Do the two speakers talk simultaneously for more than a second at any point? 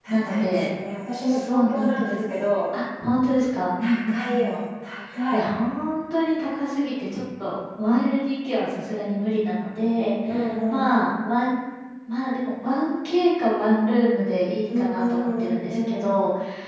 Yes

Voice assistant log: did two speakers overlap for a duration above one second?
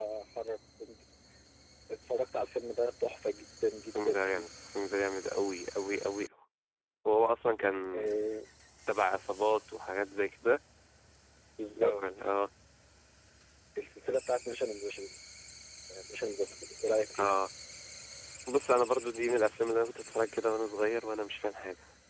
No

